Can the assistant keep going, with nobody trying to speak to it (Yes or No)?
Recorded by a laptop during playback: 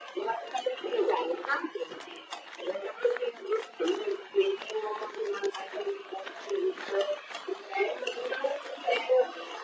Yes